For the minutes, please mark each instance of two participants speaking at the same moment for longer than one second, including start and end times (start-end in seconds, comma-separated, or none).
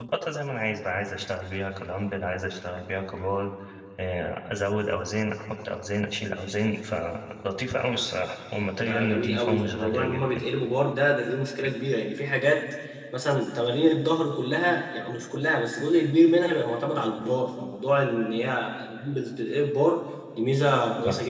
8.8-10.4